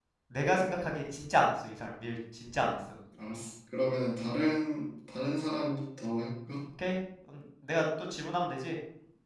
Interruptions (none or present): none